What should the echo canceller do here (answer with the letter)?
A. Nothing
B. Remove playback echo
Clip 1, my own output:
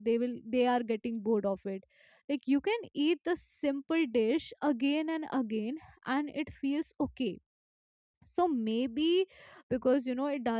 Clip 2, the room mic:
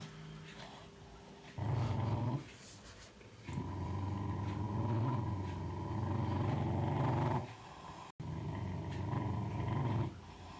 A